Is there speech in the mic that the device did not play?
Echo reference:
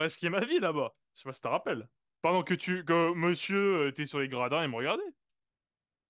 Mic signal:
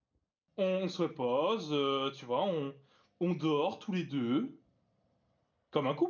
Yes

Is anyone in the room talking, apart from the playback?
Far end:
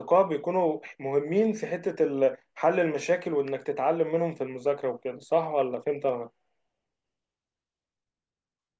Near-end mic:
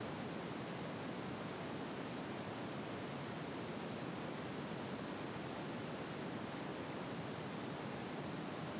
No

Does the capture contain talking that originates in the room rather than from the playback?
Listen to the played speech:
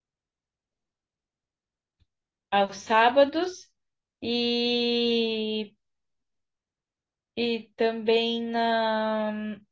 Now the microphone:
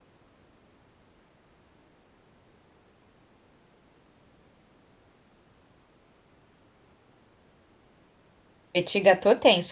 Yes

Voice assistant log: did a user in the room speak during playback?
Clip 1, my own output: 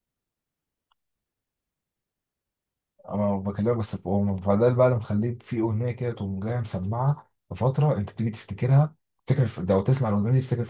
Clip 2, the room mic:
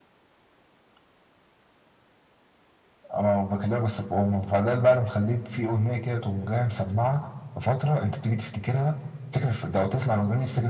No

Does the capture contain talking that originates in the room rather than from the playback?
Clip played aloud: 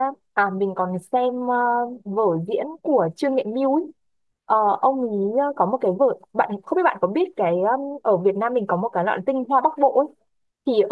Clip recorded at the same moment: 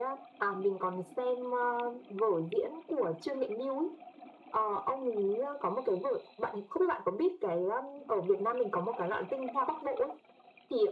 No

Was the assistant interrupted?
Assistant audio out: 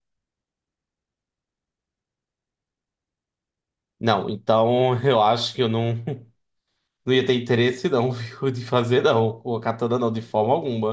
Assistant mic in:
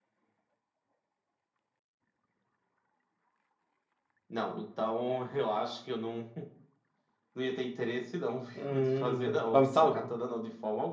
Yes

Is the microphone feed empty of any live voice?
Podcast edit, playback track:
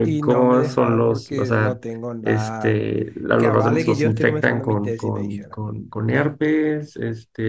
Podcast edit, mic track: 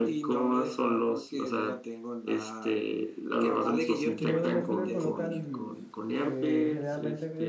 No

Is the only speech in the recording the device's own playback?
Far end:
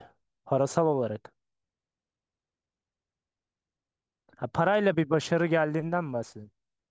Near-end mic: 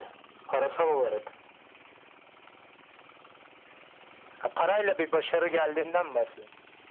Yes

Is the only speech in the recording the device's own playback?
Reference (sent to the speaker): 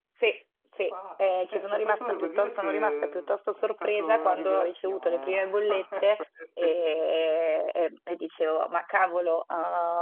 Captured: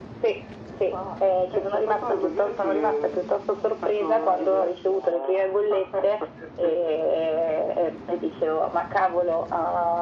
Yes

